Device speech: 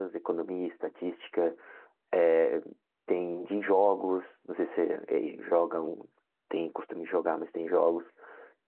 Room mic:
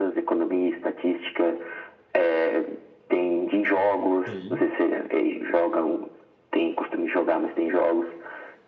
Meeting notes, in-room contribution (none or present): present